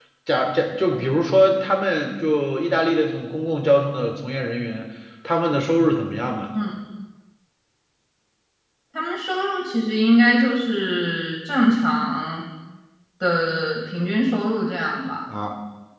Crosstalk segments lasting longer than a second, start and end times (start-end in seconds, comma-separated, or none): none